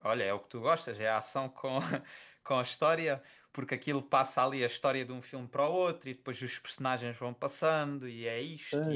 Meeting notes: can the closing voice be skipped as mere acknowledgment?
No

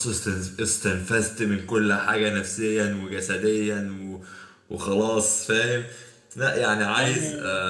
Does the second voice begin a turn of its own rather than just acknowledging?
No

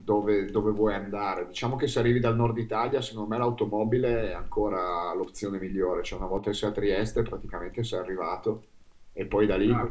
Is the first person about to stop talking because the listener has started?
Yes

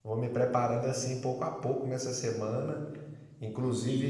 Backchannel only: Yes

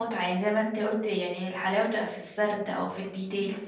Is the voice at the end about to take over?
Yes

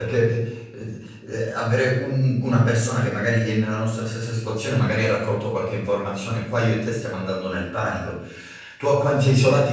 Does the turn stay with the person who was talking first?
Yes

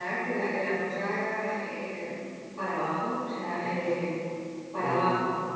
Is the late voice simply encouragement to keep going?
Yes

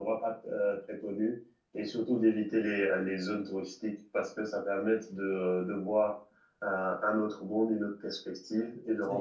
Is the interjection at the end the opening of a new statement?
No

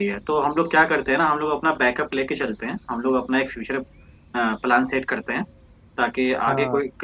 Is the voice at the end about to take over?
No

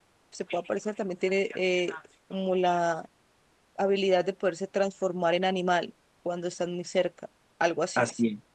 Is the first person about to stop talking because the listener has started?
Yes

